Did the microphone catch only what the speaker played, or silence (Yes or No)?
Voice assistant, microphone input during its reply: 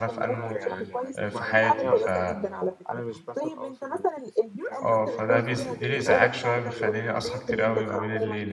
No